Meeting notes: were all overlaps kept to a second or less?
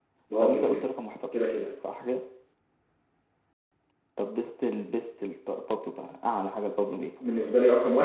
Yes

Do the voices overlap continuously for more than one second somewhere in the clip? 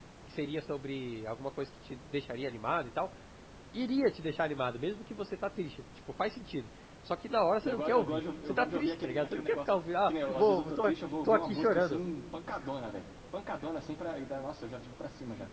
Yes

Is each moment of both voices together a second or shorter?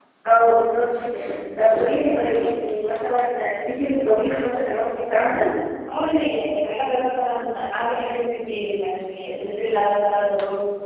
Yes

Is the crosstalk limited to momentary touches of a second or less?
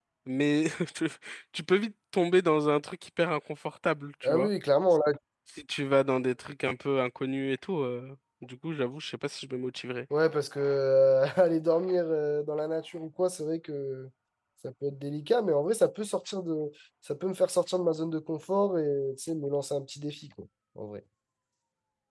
Yes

